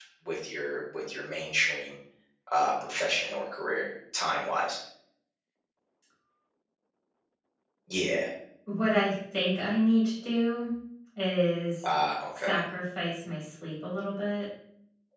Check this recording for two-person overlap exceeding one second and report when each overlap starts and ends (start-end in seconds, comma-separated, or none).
none